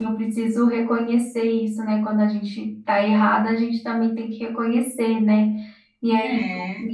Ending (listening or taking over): listening